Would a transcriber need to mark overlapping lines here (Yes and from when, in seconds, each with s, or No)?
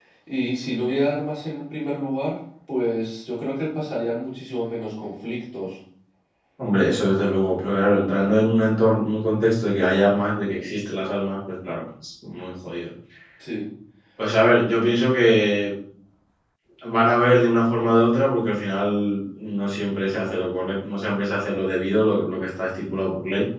No